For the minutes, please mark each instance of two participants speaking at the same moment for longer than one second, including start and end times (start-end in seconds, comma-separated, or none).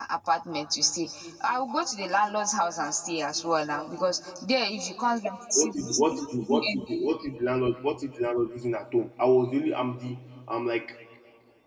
5.5-6.8